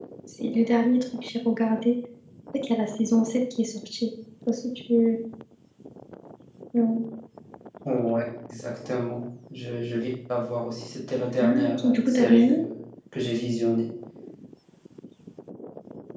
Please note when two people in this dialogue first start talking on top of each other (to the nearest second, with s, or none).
11 s